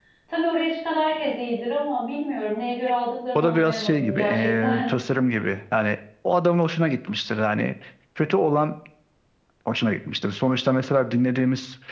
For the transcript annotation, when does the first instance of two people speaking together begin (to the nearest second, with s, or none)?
3 s